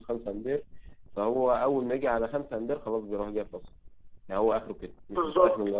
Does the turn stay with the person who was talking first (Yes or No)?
No